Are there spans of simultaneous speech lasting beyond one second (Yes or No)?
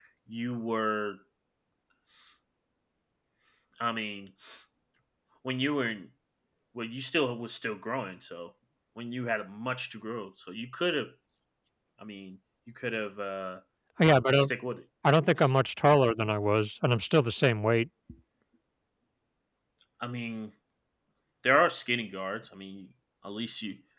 No